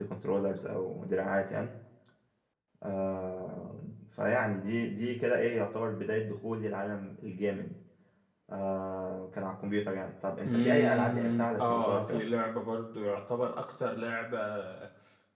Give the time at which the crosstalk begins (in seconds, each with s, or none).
10.4 s